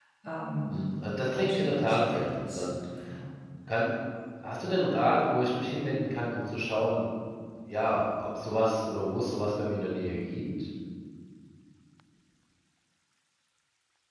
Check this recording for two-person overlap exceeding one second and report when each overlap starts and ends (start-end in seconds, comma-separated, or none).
0.7-2.8